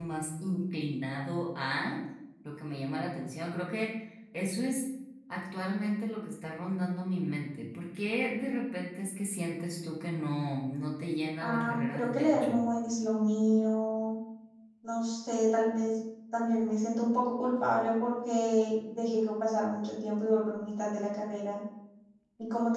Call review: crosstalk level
present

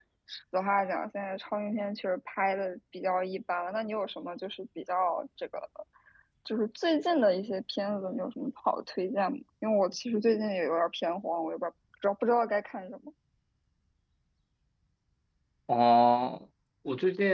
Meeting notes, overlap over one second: none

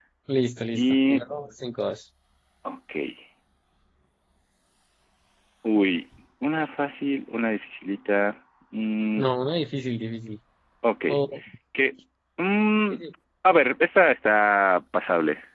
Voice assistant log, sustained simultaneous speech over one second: none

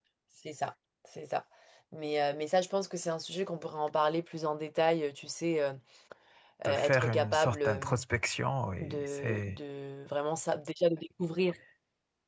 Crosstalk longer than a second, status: present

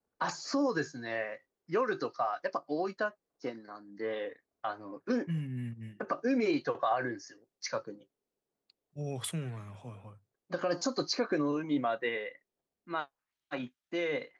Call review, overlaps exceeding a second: none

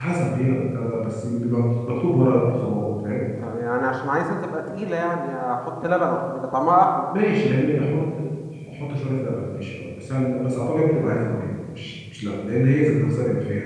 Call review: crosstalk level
none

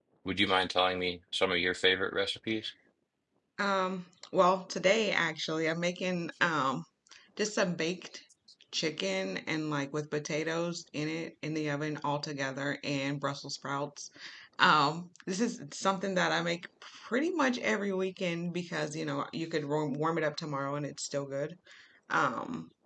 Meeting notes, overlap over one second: none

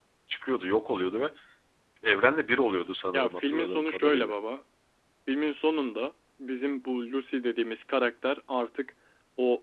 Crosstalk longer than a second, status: present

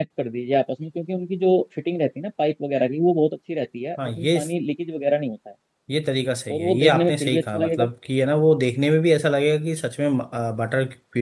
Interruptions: present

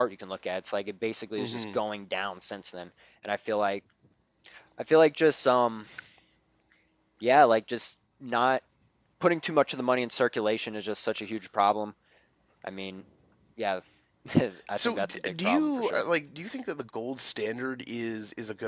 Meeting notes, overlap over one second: present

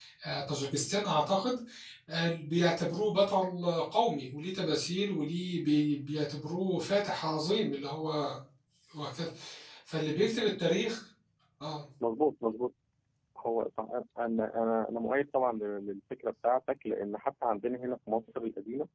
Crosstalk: none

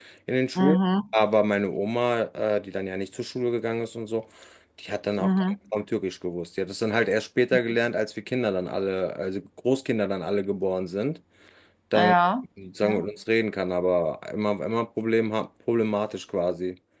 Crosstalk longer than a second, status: none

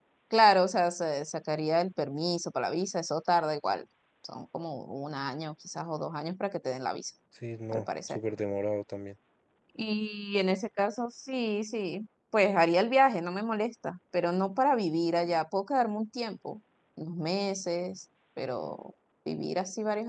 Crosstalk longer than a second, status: none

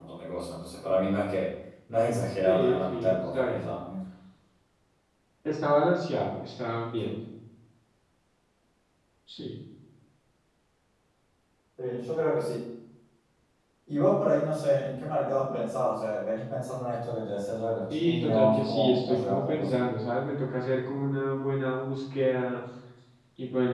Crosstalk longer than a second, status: present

